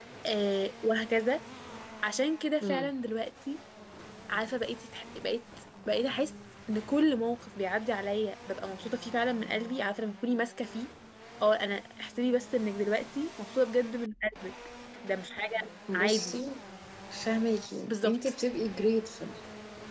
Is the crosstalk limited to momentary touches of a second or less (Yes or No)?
Yes